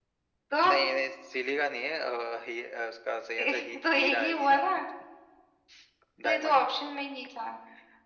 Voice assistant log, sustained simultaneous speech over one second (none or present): present